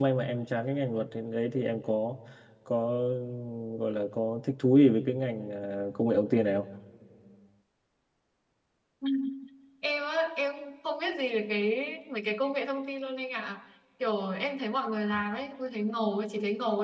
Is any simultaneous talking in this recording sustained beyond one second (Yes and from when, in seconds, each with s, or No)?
No